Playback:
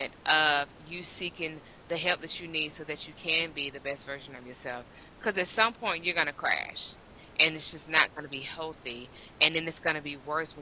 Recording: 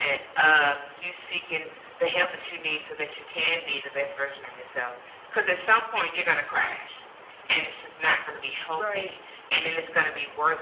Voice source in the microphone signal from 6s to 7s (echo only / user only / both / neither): echo only